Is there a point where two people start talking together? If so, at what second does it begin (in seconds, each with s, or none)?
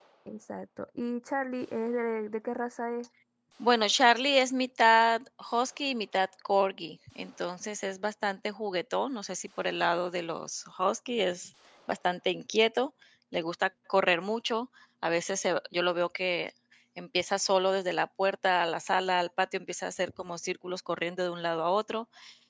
none